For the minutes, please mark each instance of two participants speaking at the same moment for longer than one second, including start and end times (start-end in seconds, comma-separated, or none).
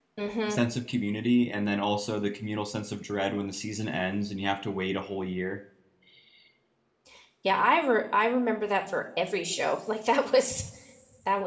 none